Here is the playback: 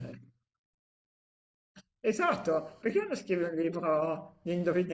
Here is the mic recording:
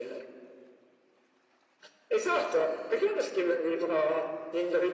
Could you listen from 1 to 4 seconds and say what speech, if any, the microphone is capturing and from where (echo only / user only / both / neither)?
echo only